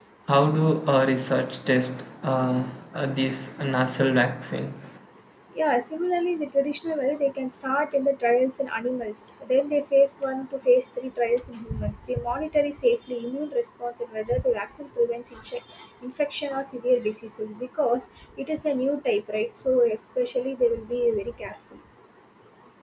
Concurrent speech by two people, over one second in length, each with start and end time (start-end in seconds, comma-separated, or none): none